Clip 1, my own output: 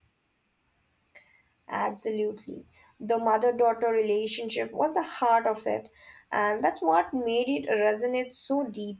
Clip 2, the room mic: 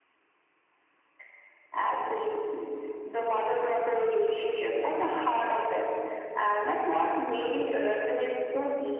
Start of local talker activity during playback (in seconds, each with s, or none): none